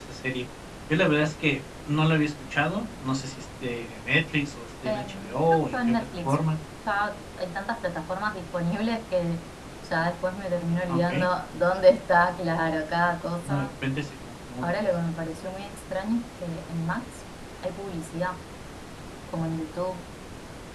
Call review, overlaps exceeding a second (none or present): present